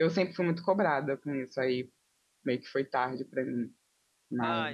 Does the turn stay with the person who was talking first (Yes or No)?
No